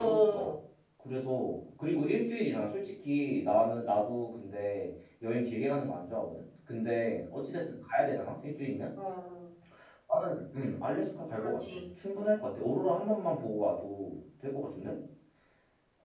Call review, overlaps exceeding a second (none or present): none